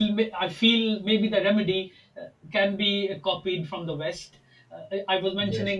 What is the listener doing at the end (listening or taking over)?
listening